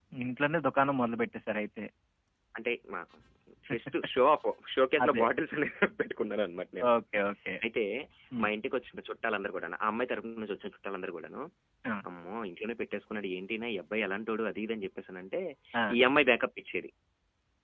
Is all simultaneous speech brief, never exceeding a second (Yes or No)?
Yes